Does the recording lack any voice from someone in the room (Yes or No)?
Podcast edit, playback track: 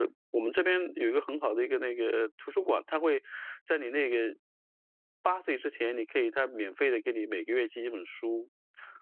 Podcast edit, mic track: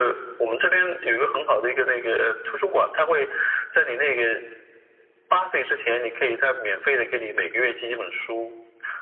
Yes